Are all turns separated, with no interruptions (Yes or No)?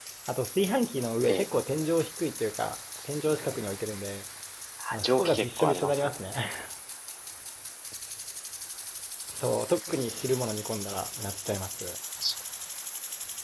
No